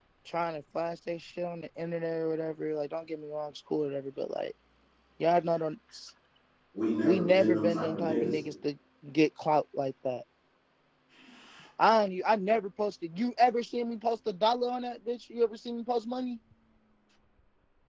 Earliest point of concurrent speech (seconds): 7.0 s

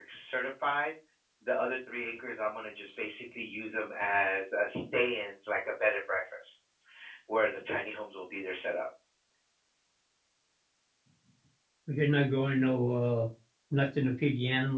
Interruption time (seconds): none

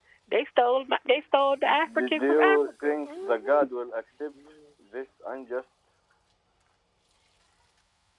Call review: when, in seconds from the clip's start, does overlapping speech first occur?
1.6 s

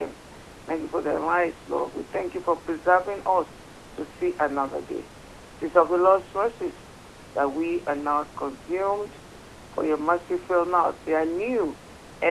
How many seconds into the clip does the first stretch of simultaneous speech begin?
none

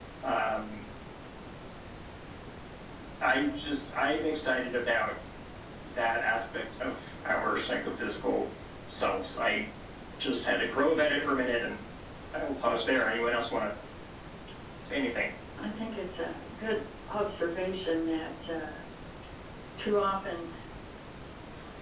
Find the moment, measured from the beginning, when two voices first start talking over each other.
none

